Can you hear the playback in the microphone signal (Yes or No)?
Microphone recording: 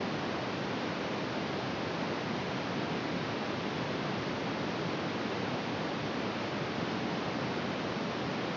No